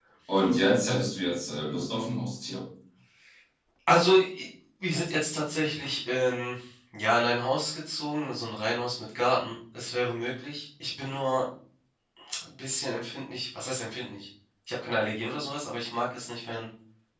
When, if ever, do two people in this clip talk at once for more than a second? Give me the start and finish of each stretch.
none

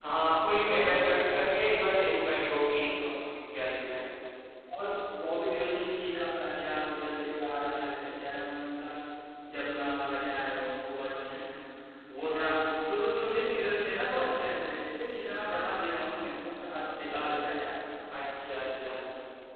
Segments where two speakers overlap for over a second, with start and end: none

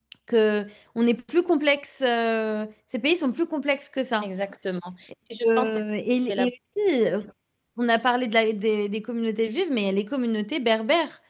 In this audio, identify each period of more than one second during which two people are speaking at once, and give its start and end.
none

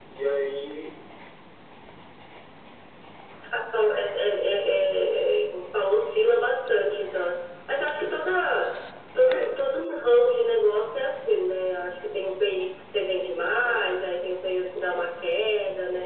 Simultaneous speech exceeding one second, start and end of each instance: none

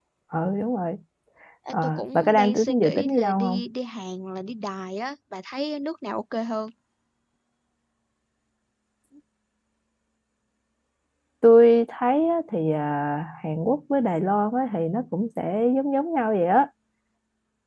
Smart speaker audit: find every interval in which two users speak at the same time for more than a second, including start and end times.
1.7-3.6

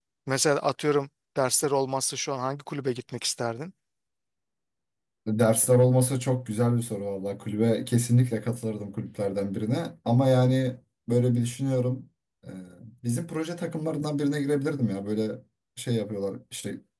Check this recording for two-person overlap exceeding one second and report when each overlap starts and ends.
none

